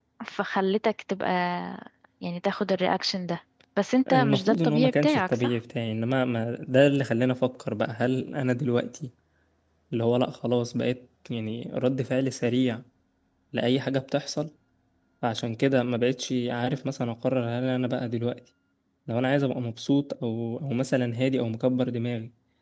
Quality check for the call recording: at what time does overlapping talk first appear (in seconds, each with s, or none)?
4.1 s